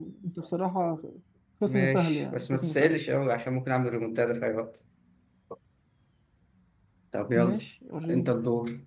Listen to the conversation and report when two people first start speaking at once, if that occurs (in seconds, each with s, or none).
1.7 s